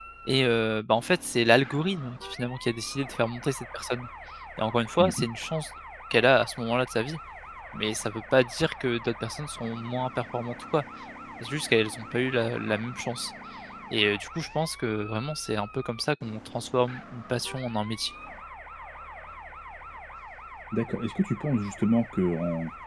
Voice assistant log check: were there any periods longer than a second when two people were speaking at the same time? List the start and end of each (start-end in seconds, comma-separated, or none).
none